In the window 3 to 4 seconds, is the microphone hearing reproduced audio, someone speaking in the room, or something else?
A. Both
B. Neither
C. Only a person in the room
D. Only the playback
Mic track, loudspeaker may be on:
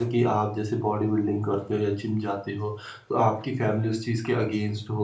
C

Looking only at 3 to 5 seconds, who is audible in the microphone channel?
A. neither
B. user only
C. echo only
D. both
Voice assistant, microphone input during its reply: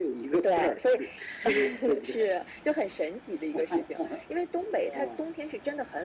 C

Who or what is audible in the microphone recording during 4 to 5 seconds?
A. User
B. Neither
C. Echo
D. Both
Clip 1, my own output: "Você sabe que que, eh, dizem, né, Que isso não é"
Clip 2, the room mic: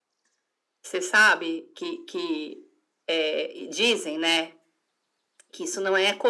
C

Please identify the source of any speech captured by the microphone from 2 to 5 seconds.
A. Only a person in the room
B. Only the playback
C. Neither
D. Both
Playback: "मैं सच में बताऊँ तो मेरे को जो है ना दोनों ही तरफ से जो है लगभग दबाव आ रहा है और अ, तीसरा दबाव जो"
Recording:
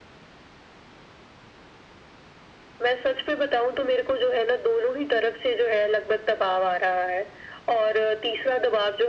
B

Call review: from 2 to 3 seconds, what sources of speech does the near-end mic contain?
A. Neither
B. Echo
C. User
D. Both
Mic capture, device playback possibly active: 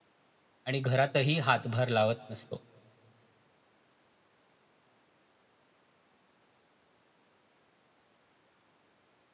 C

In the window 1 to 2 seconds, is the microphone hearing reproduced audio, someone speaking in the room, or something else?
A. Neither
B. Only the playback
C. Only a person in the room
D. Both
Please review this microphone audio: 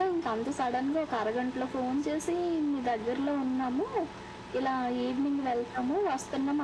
B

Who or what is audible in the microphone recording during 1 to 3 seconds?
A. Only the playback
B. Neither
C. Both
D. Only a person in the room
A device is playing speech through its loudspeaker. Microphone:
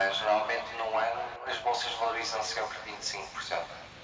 A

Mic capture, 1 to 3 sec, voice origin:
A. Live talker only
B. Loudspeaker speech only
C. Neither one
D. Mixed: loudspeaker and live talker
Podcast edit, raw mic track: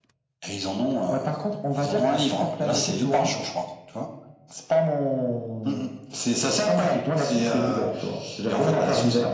B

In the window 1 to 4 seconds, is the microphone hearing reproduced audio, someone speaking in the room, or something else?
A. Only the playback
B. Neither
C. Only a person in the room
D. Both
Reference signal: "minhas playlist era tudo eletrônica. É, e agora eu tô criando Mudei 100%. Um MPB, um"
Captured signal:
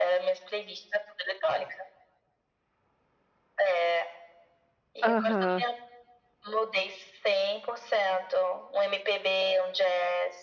A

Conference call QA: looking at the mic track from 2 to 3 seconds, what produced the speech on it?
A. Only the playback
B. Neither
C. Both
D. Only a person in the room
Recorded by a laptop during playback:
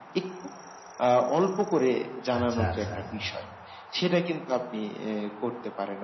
C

